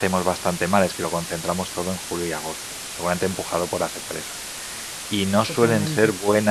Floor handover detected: No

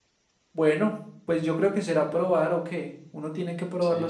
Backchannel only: No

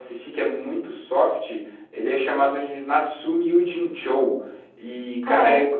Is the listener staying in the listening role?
Yes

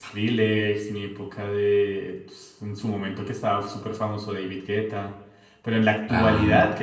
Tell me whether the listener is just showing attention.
Yes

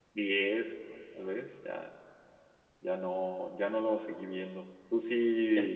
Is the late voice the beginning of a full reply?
No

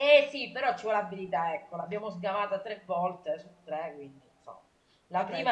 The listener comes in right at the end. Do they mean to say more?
No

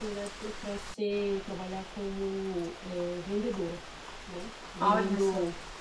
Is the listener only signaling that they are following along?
Yes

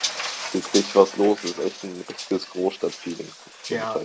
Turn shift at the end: Yes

